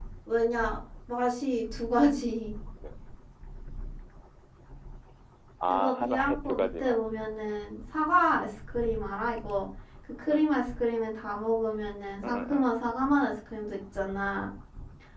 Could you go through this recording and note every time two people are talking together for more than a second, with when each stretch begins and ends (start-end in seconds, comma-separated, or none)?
5.7-7.0